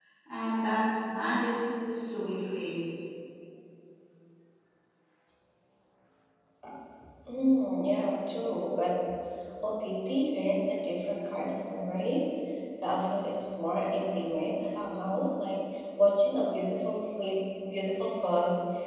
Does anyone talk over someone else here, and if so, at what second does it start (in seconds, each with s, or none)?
none